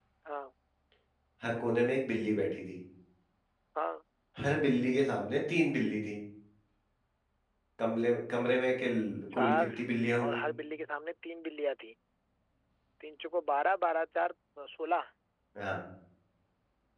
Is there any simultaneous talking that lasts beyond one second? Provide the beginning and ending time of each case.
none

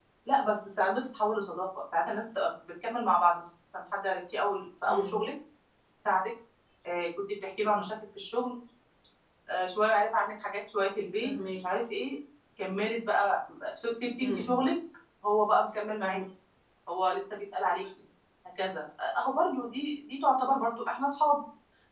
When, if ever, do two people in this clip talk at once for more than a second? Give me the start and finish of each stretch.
none

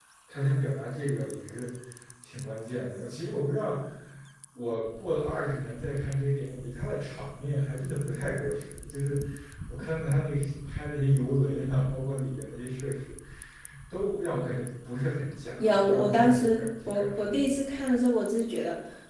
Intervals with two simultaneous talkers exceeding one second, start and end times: 15.6-17.4

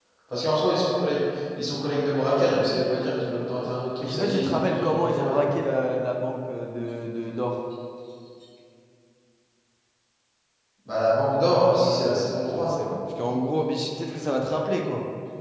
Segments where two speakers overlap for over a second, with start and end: 4.0-5.5, 11.5-12.8

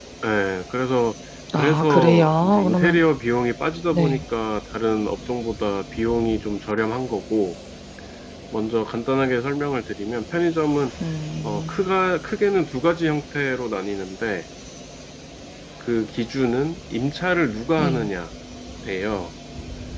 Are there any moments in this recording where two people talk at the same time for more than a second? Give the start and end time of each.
1.6-3.0

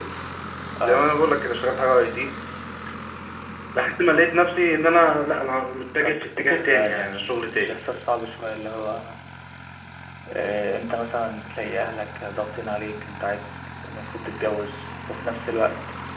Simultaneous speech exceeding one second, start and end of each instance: 6.0-7.8

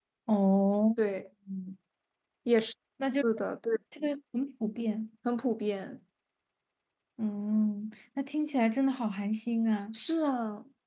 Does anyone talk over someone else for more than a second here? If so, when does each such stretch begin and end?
none

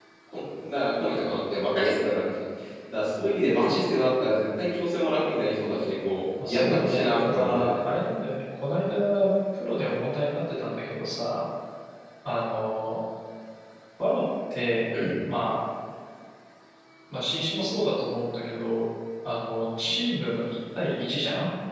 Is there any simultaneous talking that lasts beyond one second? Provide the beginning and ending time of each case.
6.5-7.7

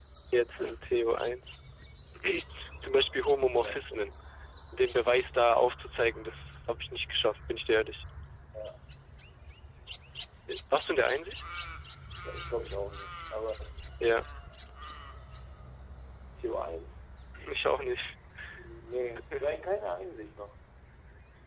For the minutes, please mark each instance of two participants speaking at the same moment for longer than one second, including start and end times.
none

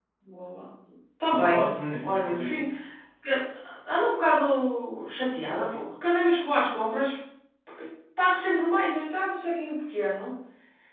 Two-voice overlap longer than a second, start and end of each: 1.3-2.6

